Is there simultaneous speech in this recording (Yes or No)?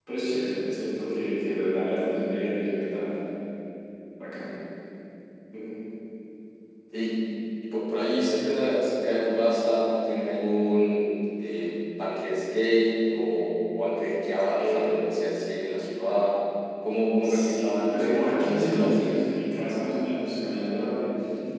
Yes